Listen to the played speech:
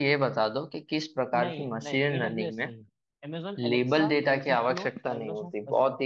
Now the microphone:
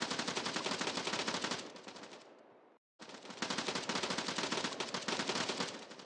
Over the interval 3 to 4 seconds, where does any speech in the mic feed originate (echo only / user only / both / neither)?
neither